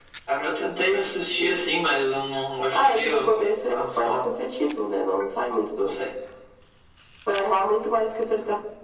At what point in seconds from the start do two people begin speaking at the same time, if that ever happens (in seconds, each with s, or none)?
2.7 s